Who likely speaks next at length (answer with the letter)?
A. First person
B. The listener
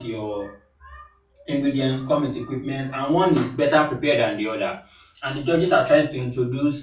A